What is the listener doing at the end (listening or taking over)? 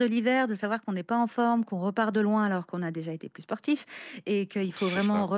listening